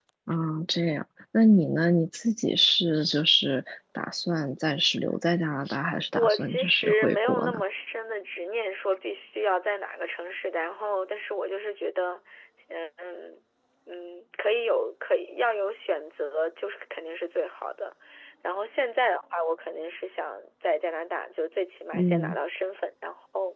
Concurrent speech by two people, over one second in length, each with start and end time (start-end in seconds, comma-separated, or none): 6.2-7.6